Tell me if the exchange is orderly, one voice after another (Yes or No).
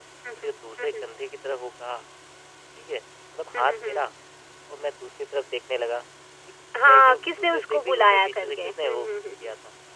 No